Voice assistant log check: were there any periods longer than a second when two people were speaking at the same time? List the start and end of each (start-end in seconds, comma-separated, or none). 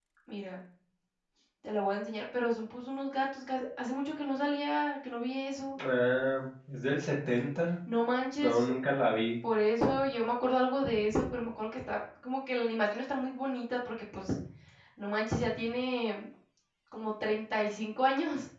none